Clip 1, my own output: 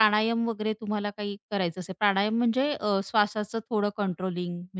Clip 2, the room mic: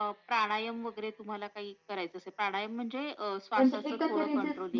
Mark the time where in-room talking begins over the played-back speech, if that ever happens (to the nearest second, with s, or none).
4 s